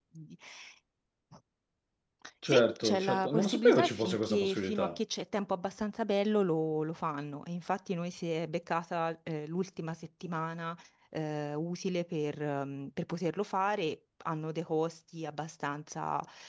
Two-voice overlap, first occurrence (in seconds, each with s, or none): 2.5 s